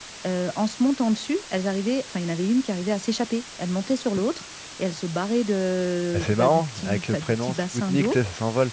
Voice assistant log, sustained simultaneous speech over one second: present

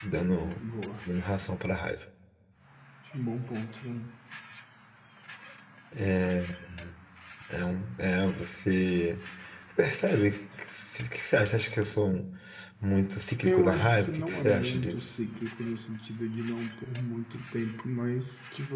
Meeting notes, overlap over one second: present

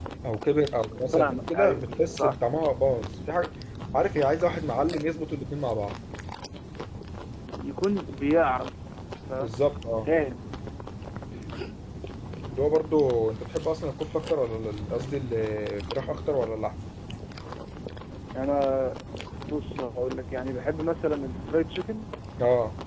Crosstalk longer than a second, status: present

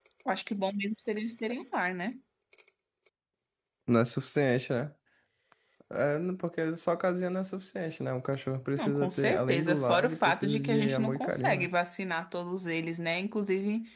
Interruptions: present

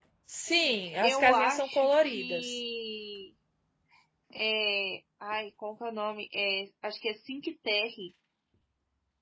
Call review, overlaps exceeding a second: present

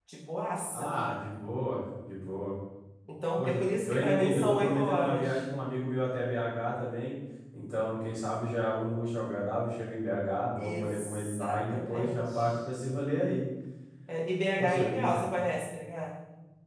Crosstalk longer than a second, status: present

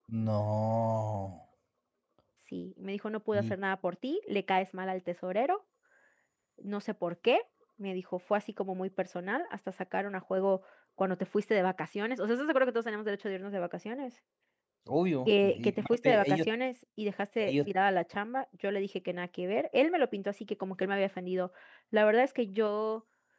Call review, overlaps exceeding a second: present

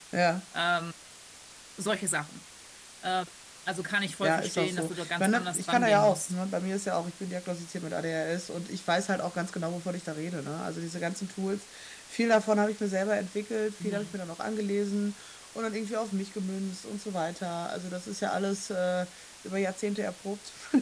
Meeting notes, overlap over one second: present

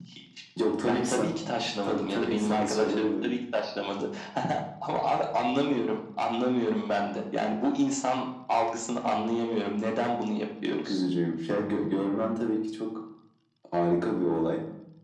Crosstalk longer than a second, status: present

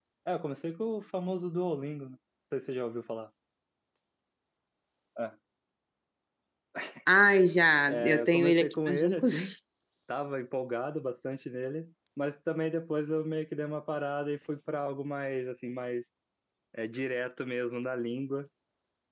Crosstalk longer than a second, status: present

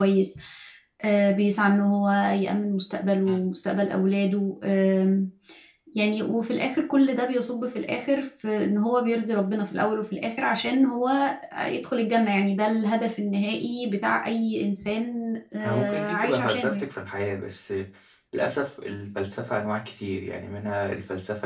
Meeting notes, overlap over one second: present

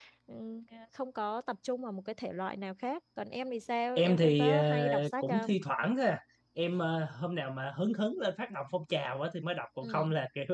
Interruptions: present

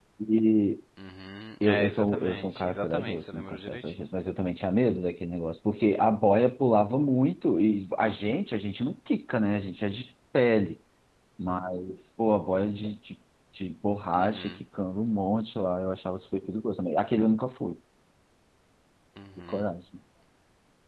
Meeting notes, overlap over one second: present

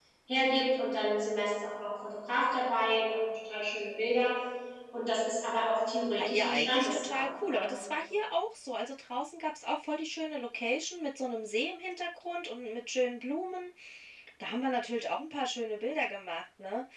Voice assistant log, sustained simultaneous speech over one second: present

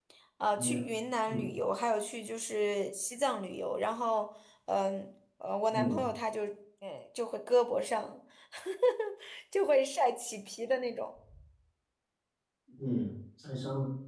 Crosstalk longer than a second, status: none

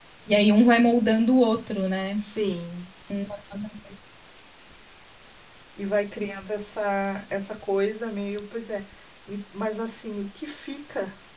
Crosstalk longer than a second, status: none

